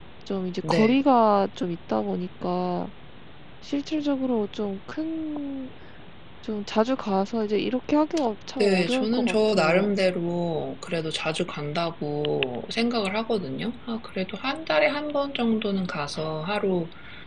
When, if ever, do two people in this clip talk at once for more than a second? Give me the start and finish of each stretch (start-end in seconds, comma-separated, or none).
8.6-10.0